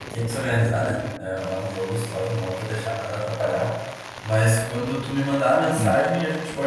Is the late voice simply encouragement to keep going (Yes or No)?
Yes